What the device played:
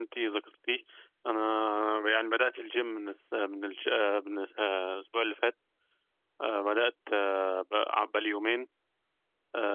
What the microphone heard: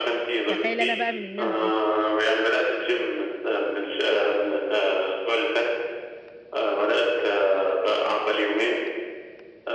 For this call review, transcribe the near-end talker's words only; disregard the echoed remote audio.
تخيل انا بقى من الناس دي

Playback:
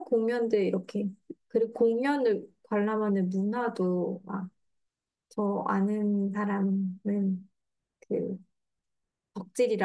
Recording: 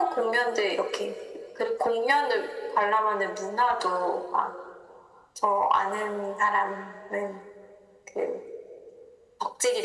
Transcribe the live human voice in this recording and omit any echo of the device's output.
none

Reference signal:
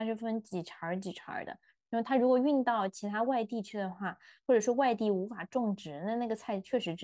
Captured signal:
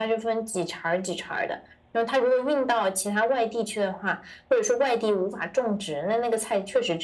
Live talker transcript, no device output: none

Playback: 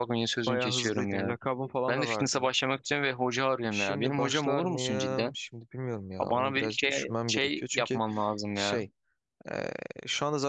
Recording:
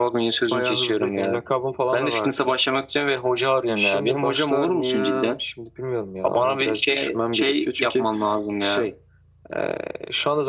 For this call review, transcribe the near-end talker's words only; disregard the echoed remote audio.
none

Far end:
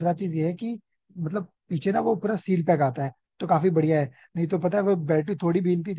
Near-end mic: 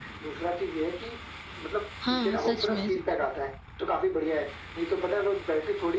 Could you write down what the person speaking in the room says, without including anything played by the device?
हाँ सच में सच में

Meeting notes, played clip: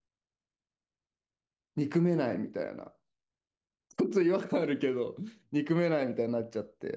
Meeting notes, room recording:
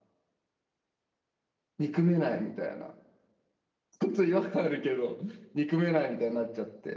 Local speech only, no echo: none

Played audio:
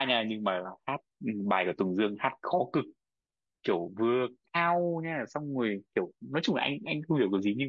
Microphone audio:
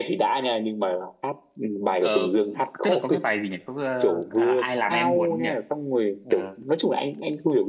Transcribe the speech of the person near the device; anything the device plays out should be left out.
Ờ, tức là có cái bài gì nhỉ? Có ờ, à, ai làm em buồn nhỉ? Ờ,

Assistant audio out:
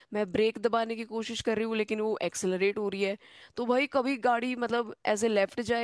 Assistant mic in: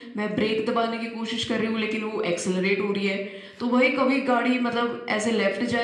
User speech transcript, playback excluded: none

